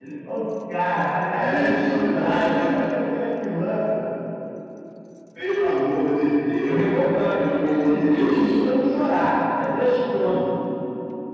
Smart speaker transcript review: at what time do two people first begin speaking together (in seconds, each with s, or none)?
1.4 s